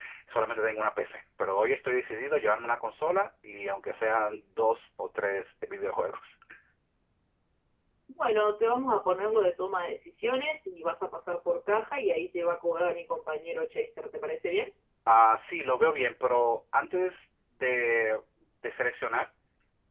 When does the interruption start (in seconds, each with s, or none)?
none